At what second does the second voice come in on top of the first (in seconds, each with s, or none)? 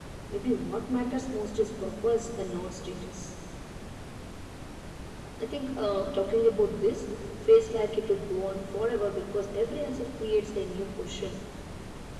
none